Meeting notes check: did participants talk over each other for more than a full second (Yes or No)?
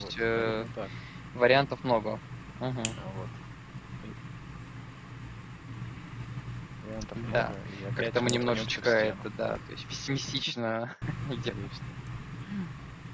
Yes